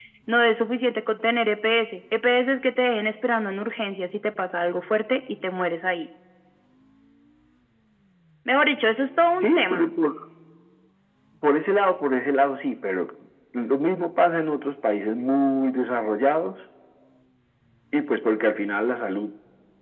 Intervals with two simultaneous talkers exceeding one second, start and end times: none

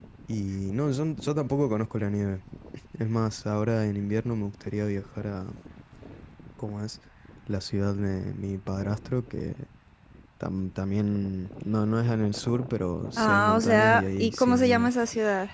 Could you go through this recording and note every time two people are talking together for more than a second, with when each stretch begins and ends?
13.2-14.9

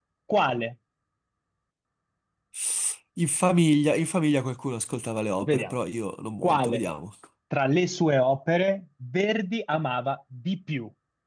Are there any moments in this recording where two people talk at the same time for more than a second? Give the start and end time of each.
none

